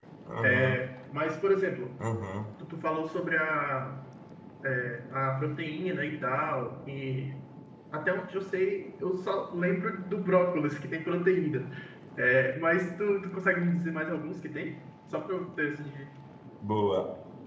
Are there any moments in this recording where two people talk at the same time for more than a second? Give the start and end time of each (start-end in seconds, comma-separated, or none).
none